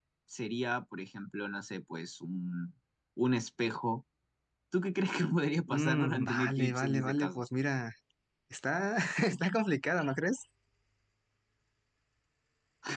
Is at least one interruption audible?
Yes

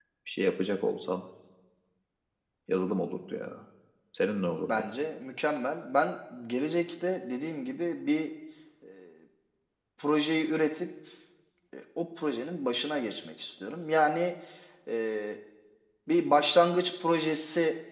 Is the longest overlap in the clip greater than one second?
No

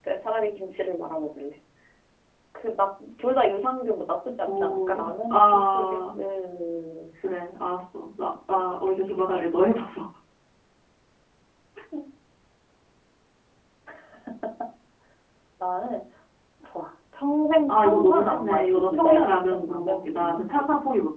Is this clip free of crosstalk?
No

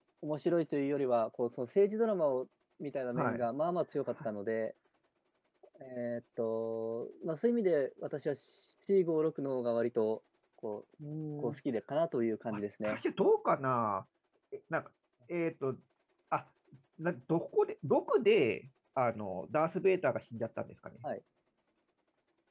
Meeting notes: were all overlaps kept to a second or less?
Yes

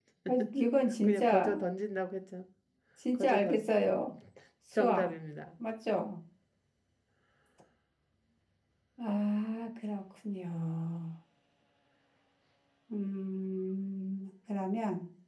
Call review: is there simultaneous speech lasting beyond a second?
No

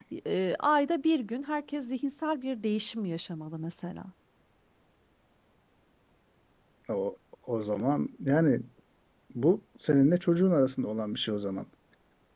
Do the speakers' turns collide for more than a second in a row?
No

